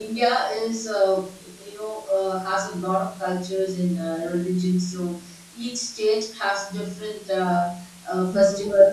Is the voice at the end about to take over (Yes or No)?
Yes